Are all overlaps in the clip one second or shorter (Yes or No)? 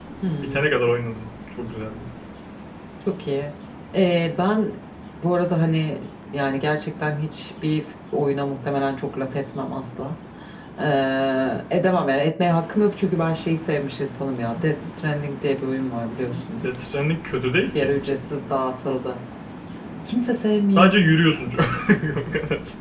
Yes